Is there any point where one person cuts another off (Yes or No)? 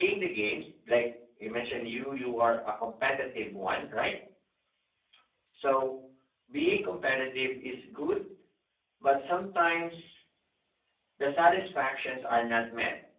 No